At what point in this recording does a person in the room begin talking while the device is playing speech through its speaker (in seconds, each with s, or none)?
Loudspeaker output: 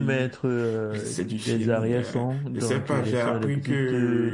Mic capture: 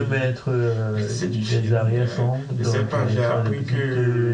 none